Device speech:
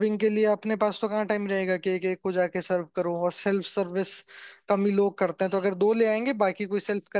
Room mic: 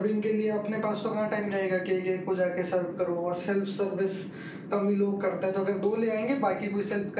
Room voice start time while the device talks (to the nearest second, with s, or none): none